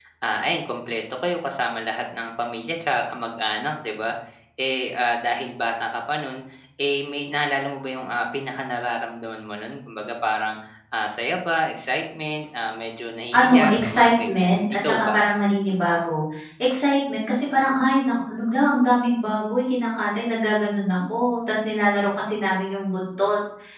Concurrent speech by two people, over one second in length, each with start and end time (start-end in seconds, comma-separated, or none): 13.3-15.2